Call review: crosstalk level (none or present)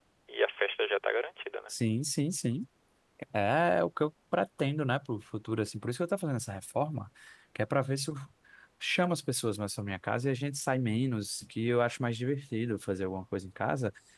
none